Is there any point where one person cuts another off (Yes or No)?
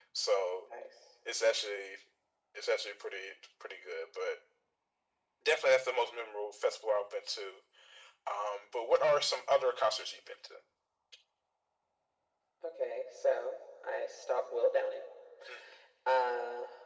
No